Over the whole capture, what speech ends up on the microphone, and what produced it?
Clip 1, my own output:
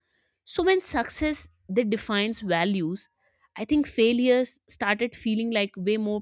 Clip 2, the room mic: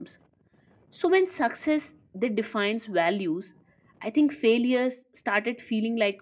echo only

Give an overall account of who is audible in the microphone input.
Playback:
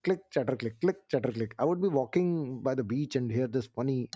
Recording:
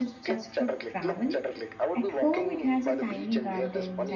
both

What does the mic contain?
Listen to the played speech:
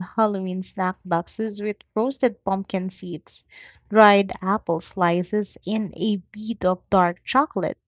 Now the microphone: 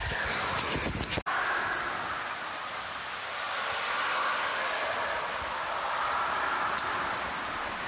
neither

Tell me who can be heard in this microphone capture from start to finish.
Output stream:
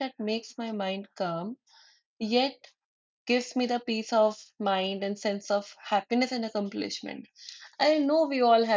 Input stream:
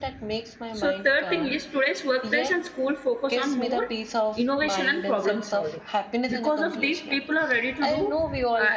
both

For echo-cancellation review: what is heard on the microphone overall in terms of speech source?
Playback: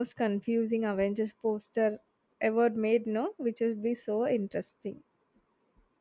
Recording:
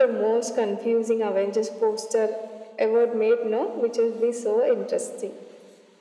echo only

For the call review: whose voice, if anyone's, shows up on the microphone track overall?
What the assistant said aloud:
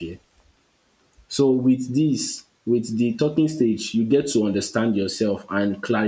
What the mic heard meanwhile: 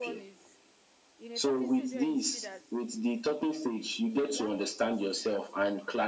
both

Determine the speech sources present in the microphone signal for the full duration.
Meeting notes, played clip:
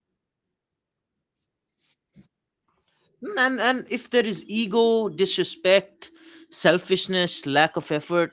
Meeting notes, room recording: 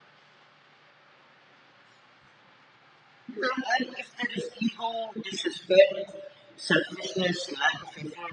echo only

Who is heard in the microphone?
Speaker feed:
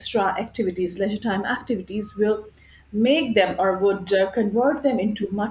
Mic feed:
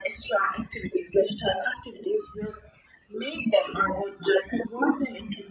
echo only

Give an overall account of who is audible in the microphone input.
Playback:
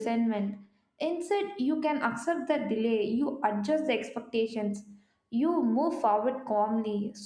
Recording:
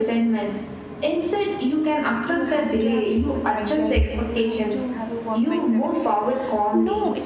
both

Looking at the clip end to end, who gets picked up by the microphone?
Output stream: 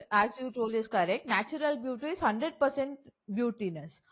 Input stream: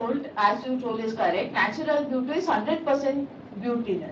echo only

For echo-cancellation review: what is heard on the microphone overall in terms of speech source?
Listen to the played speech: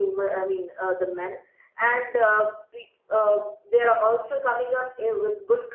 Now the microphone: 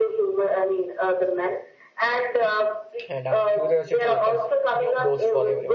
both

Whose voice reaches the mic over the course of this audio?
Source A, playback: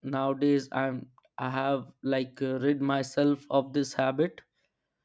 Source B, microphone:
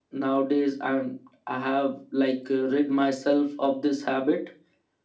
echo only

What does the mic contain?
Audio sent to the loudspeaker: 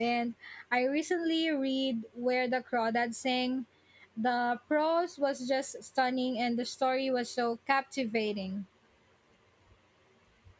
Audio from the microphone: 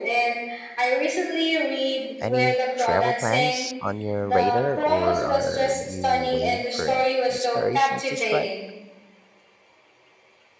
both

